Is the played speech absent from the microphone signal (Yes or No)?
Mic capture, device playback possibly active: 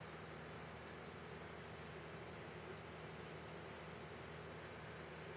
Yes